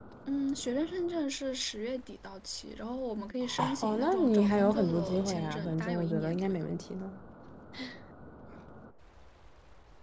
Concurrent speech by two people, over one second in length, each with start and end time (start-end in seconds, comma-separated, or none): 3.8-6.7